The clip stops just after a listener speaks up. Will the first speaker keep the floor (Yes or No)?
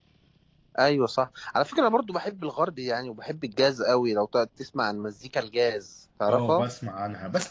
No